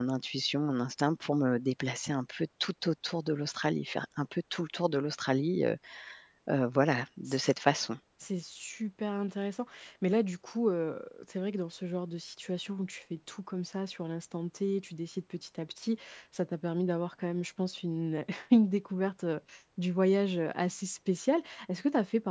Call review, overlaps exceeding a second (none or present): none